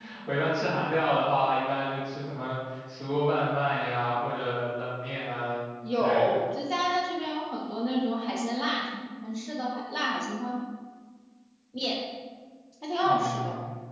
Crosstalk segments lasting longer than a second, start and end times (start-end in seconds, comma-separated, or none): none